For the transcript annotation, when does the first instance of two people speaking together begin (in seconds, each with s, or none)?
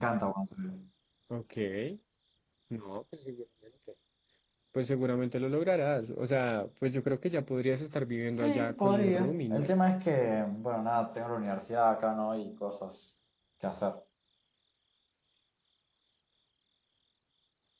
8.4 s